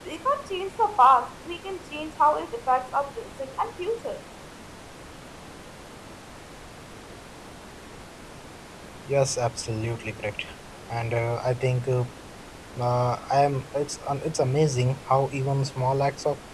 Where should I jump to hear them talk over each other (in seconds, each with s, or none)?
none